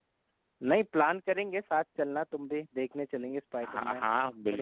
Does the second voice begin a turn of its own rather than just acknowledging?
Yes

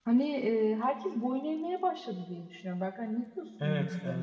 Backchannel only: No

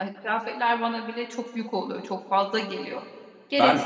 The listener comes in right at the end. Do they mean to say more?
Yes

